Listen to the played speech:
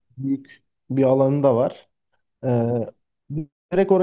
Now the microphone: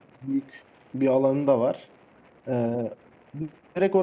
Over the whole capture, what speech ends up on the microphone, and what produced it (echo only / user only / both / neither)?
echo only